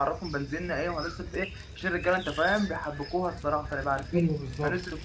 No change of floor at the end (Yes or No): Yes